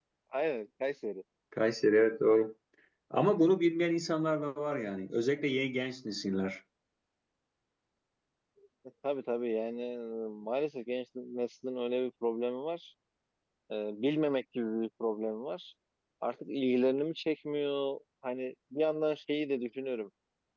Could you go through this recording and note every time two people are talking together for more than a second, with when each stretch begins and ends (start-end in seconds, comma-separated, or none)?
none